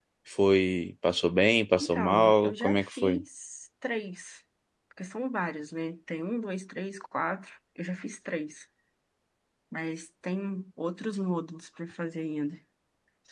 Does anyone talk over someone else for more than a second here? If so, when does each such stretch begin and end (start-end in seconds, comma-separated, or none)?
1.8-3.2